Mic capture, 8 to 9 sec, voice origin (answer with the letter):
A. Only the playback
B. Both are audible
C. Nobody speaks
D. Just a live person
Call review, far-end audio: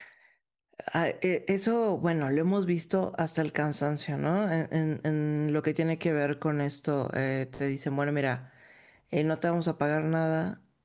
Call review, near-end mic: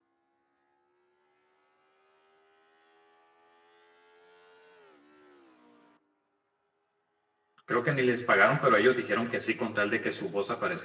D